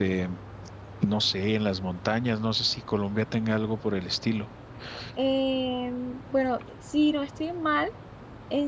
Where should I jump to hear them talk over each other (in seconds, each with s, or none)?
none